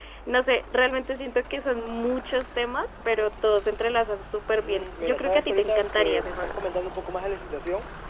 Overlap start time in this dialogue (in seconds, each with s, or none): 4.6 s